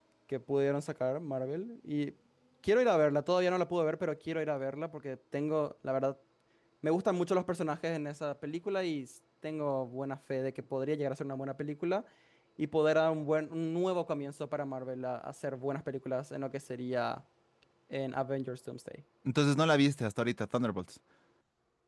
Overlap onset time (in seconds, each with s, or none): none